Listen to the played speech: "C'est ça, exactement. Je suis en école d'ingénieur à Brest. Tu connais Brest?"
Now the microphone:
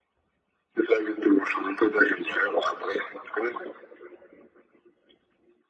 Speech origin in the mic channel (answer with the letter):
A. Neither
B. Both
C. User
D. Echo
D